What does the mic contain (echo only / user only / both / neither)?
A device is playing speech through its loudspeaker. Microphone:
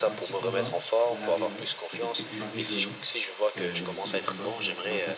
both